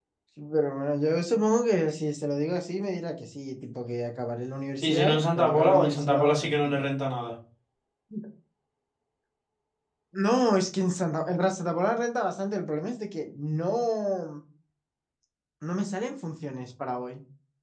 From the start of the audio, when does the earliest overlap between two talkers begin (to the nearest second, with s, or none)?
5 s